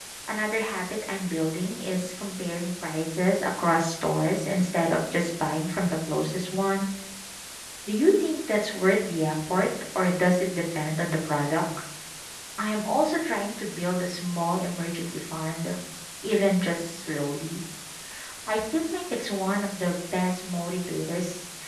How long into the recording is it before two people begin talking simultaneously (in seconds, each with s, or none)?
none